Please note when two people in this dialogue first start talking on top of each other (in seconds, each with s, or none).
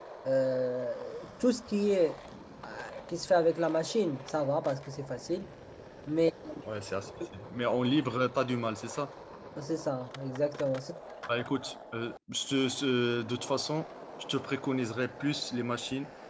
none